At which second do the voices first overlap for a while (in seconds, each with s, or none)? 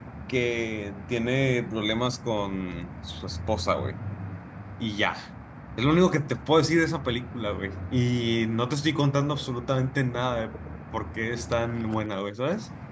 none